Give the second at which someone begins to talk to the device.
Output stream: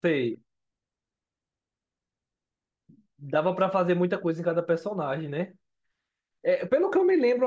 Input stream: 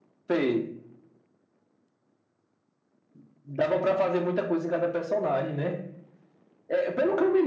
none

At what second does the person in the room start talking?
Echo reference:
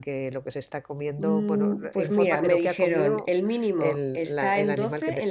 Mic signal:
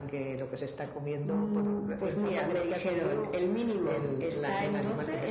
none

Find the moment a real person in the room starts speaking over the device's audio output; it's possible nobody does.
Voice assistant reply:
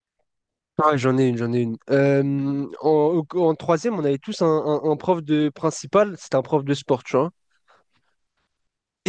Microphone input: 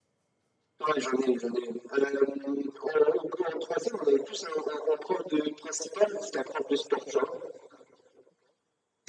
none

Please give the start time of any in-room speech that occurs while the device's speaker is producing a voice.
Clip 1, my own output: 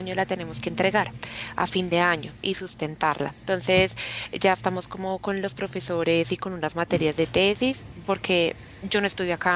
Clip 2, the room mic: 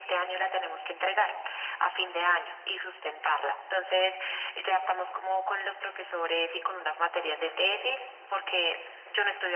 none

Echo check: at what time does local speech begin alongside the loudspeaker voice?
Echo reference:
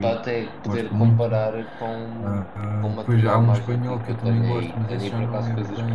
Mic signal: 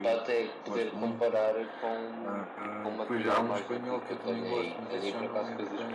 none

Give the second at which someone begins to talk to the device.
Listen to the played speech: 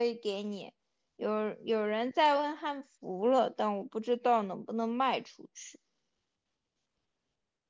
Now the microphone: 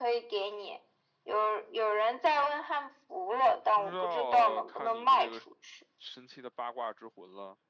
3.7 s

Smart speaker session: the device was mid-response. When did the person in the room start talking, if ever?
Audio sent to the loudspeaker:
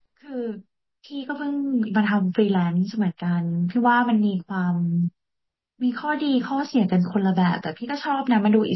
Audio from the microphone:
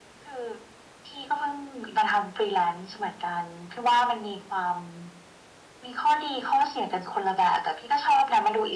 none

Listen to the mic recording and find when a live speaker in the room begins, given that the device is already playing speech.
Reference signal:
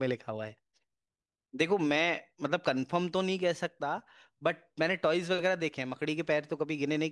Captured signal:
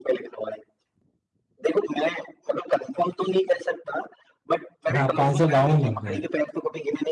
4.9 s

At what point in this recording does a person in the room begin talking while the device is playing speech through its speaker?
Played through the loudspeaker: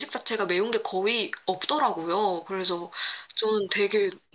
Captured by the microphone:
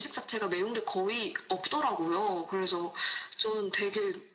none

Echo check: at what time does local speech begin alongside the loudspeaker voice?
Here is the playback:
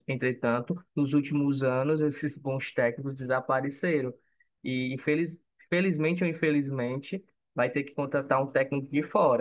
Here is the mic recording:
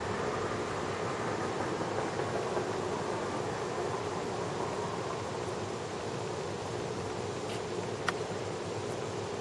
none

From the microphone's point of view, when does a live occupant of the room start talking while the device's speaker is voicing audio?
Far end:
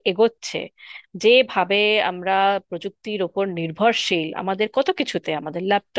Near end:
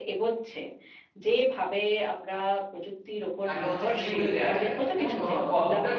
3.5 s

